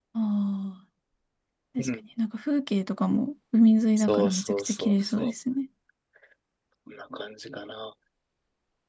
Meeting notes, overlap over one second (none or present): present